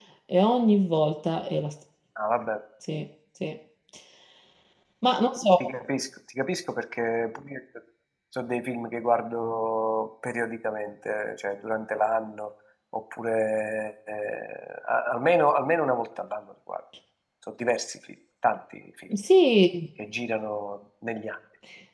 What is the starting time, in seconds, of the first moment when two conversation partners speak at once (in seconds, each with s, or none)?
none